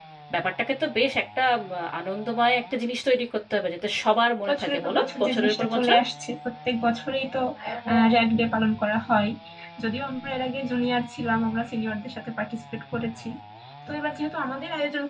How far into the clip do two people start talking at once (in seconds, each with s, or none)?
4.5 s